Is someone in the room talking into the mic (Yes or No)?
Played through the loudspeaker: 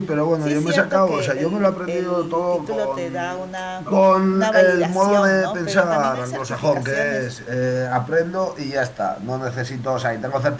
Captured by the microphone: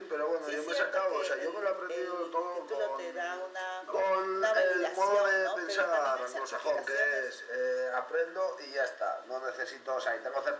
No